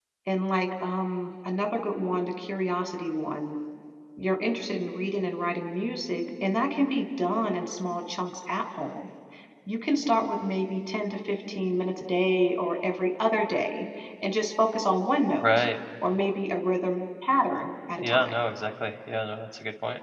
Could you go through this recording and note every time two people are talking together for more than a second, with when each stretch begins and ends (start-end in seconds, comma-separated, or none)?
none